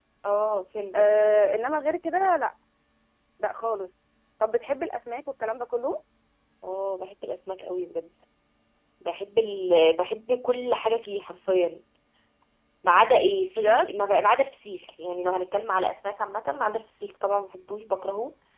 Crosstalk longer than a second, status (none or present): none